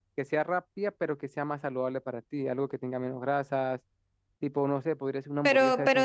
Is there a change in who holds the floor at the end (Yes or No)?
Yes